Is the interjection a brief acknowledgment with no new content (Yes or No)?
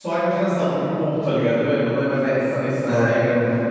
Yes